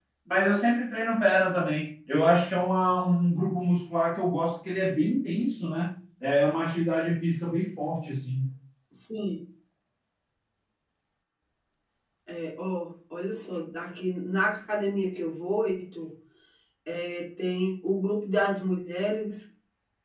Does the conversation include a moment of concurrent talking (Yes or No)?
No